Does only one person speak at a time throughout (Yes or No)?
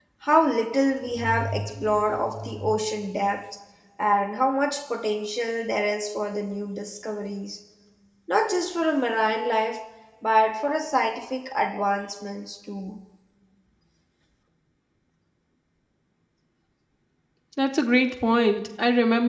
Yes